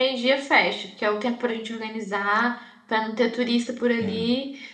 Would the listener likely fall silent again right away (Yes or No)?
Yes